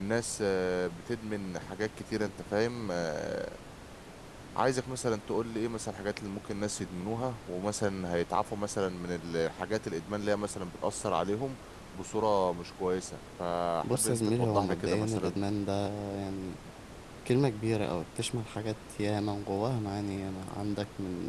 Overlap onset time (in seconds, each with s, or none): 13.8 s